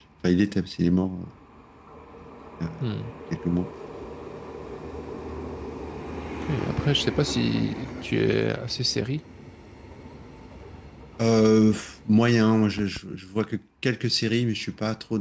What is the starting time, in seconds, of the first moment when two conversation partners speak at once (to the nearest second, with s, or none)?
none